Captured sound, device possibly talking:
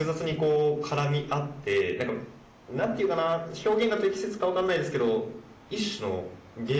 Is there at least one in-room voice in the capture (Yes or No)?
Yes